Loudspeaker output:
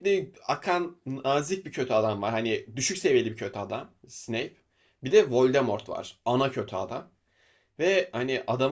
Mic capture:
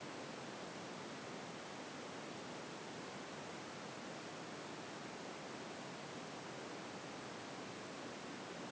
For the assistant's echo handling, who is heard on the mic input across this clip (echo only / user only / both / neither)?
neither